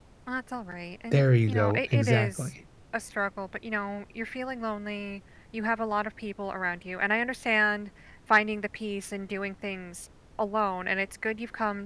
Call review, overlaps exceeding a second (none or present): present